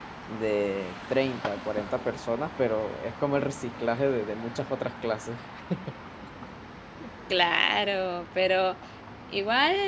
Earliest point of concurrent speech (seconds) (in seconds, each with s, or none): none